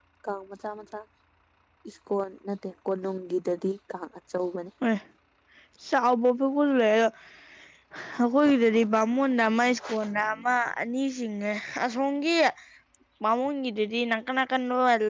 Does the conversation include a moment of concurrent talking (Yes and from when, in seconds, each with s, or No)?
No